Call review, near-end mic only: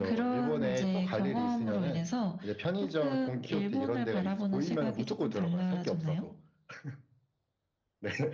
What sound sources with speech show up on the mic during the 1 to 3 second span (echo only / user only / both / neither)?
echo only